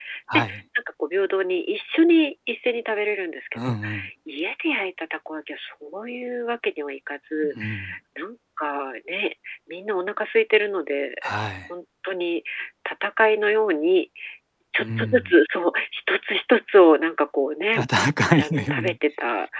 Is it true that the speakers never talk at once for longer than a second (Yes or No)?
Yes